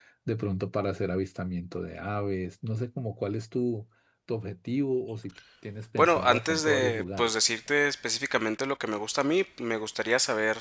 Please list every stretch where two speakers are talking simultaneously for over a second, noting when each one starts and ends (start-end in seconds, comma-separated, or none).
6.0-7.3